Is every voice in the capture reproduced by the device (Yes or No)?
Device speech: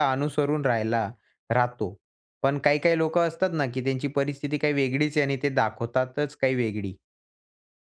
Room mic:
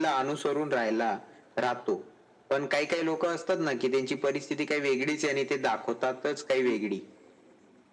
No